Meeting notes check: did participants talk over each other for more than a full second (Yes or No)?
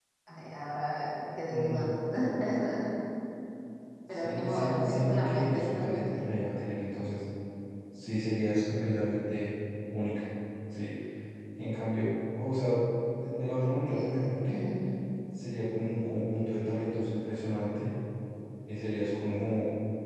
Yes